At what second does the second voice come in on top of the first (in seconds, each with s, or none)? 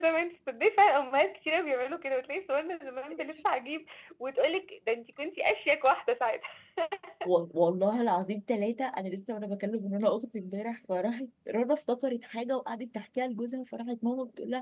none